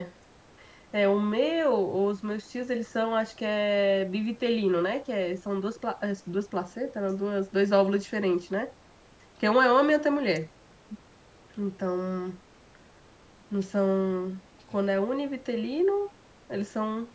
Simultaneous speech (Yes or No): No